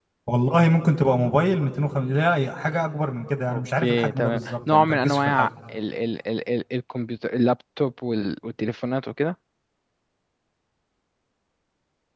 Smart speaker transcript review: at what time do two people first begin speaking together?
3.5 s

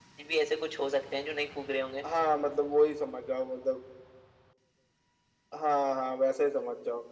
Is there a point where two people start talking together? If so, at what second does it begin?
none

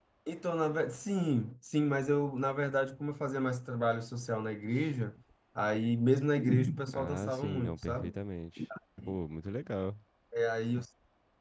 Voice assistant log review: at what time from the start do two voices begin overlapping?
6.9 s

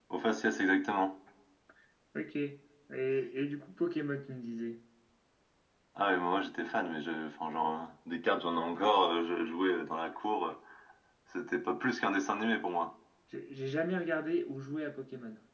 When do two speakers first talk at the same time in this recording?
none

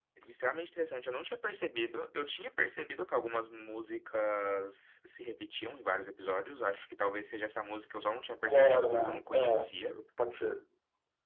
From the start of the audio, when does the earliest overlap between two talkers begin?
8.4 s

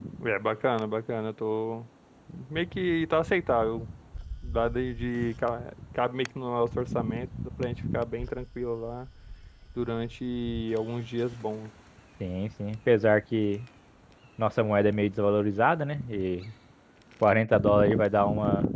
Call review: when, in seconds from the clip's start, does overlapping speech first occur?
none

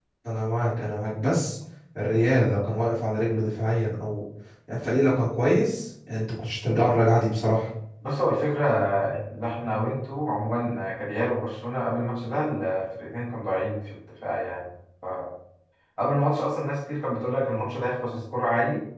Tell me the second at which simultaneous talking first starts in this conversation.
none

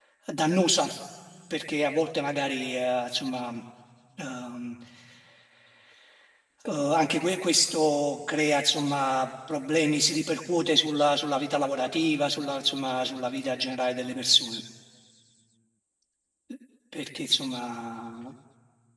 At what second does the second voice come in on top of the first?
none

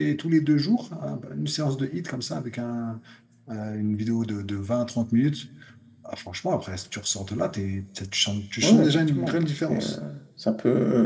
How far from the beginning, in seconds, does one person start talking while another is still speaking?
8.6 s

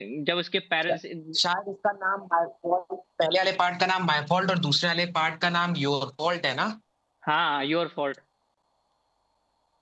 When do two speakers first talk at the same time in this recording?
none

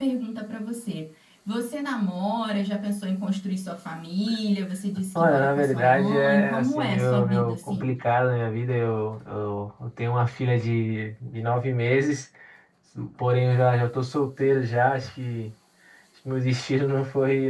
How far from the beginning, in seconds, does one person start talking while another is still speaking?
5.2 s

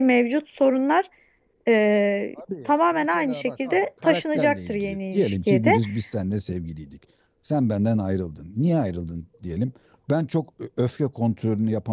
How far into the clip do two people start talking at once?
2.4 s

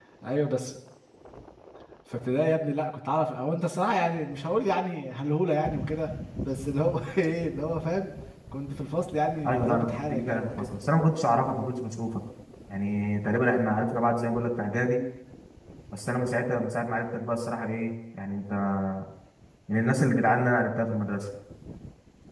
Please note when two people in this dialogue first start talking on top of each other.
9.4 s

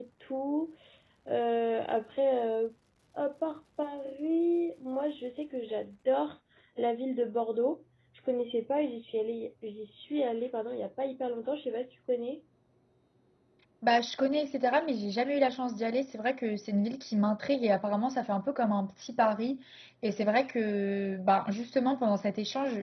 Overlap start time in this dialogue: none

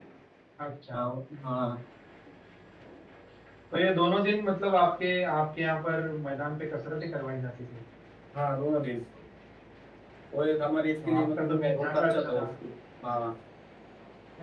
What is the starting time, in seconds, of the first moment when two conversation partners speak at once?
11.0 s

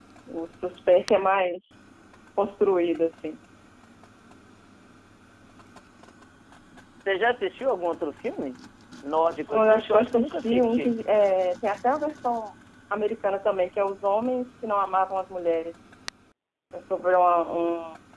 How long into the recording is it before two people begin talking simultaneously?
9.5 s

